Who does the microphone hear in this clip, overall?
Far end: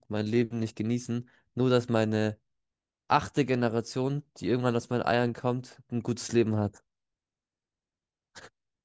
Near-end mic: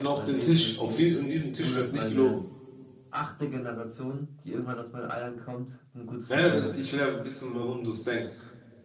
both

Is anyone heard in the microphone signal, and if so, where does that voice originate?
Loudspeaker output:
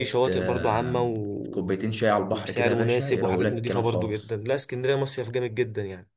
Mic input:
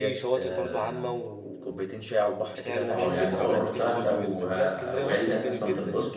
both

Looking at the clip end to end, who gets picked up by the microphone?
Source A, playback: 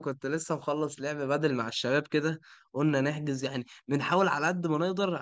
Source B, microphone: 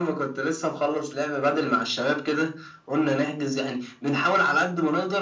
echo only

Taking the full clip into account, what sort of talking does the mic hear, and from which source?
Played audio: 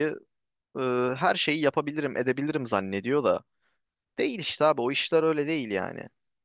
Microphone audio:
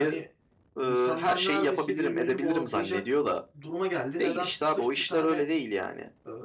both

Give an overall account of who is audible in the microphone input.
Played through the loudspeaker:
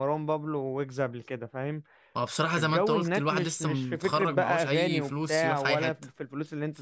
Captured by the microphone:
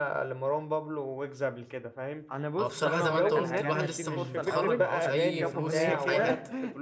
both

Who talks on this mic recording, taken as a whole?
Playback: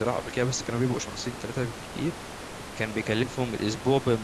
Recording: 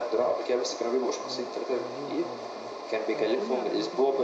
both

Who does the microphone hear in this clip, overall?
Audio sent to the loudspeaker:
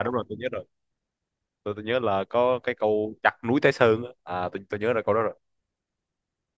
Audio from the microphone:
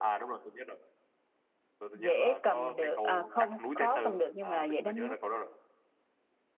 both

